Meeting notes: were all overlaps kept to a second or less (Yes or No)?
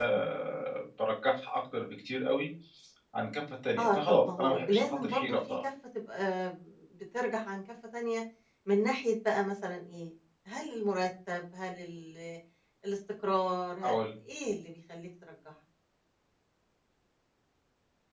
No